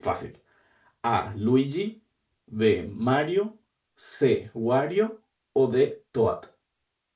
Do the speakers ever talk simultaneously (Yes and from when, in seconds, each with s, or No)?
No